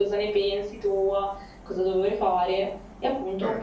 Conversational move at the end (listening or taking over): listening